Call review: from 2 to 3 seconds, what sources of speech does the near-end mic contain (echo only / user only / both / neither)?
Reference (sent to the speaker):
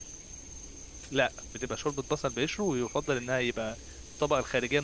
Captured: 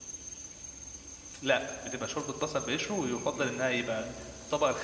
echo only